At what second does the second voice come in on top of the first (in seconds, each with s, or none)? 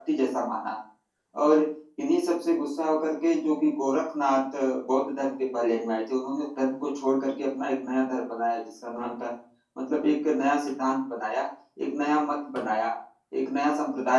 none